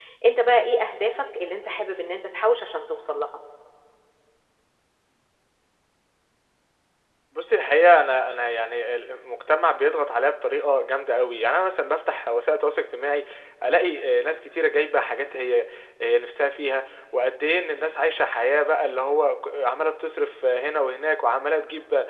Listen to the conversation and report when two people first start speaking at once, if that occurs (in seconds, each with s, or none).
none